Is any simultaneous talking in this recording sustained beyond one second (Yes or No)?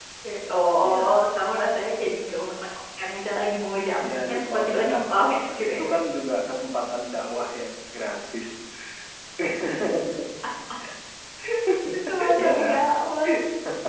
Yes